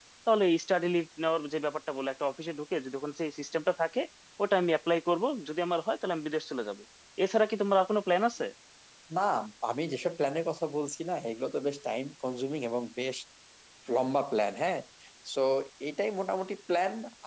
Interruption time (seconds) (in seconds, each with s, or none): none